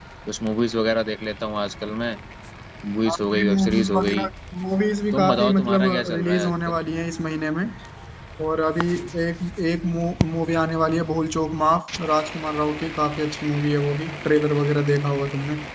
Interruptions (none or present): present